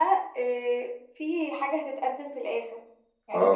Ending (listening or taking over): taking over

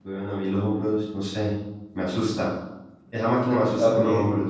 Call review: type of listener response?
listening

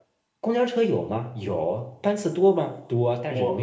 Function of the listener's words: listening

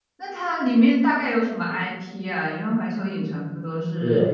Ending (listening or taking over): taking over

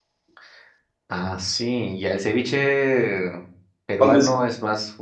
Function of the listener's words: listening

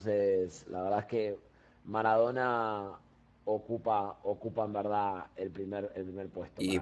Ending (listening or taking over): taking over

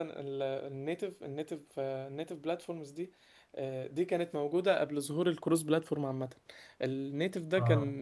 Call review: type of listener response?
listening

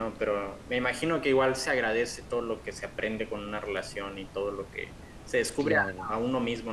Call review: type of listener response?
listening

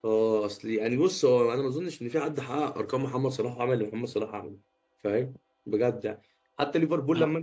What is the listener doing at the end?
listening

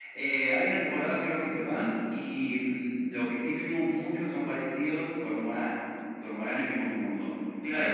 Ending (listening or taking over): taking over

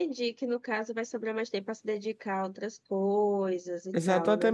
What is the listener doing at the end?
taking over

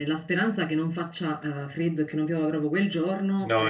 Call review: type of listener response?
listening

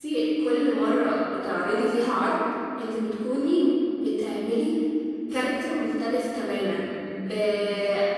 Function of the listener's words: listening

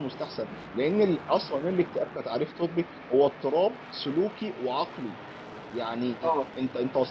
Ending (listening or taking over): listening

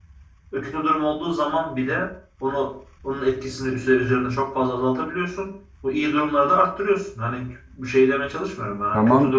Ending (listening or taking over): listening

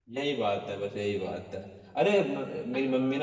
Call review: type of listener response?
listening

